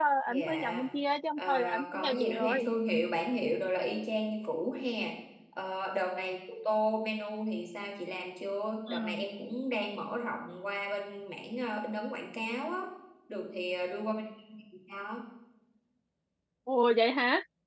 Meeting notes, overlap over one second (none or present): present